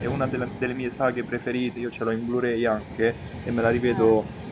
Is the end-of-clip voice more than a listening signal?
No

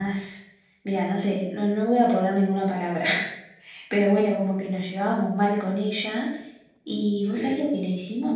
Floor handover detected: No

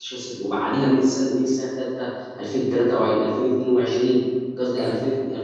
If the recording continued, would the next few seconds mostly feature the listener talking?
No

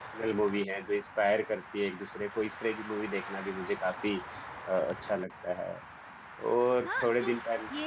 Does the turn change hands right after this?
Yes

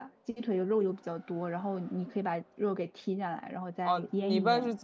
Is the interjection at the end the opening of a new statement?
Yes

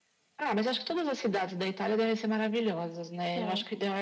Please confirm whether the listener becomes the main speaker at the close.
No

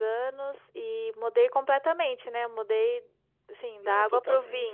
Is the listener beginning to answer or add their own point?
No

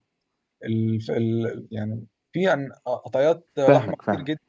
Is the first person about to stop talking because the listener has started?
Yes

